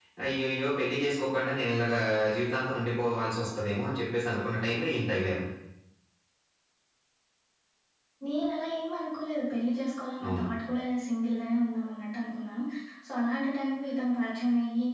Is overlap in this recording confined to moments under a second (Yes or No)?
Yes